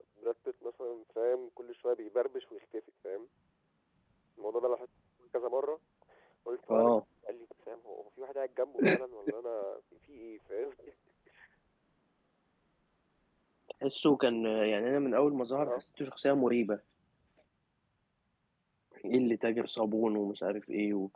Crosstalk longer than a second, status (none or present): none